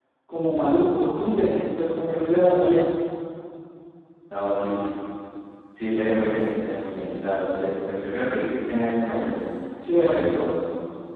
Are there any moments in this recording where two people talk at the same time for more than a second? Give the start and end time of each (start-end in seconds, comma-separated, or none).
none